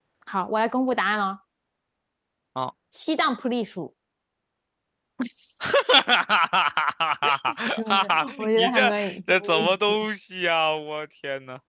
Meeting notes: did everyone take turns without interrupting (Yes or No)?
No